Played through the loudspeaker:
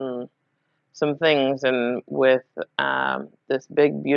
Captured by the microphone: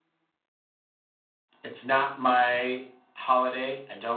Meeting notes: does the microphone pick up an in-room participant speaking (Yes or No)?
Yes